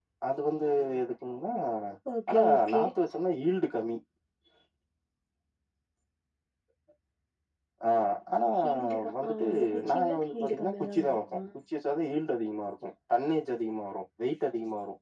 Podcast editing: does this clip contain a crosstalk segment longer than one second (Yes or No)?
Yes